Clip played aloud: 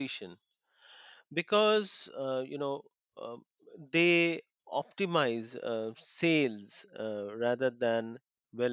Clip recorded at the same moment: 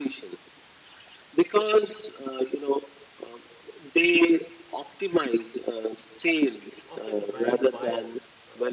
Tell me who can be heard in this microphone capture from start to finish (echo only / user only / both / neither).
both